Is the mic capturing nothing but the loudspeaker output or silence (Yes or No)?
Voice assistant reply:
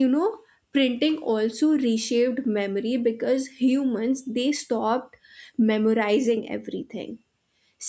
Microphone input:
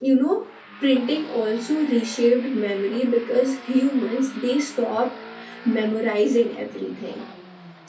Yes